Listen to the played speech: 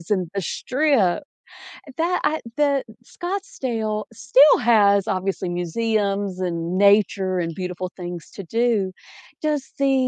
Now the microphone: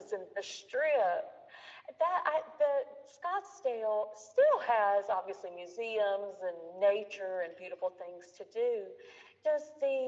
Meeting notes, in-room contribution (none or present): none